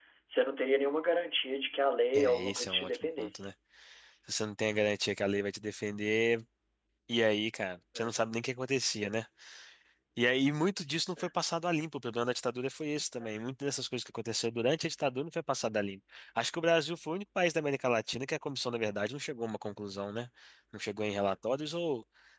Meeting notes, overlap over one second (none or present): present